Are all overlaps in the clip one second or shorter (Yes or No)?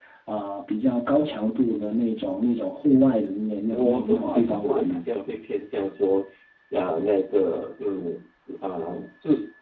No